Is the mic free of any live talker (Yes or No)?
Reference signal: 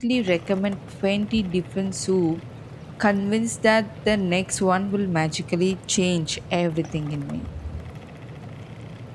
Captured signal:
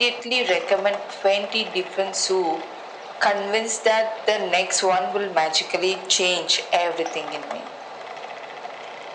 Yes